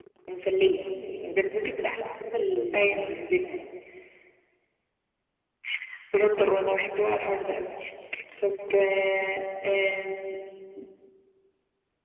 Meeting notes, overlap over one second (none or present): none